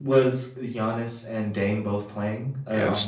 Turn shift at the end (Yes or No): Yes